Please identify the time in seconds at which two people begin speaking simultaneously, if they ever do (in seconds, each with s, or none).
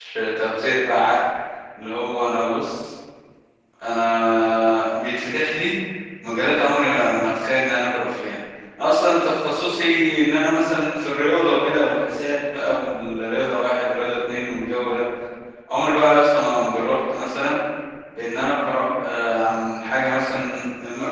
none